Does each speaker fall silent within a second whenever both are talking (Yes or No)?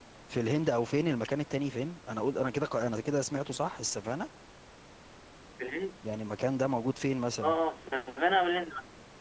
Yes